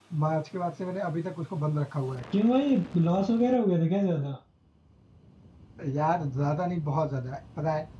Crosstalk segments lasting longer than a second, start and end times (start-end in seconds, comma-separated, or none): none